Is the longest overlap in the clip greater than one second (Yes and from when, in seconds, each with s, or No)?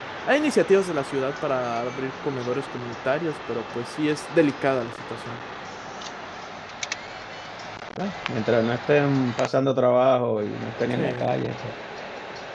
No